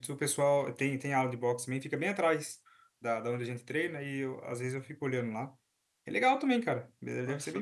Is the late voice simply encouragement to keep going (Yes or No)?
No